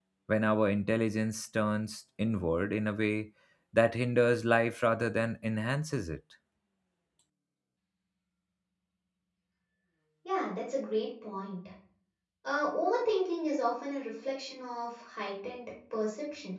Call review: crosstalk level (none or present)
none